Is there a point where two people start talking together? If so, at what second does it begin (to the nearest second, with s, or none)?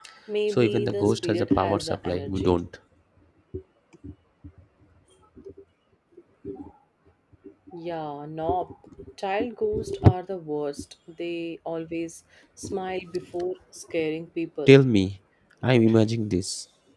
1 s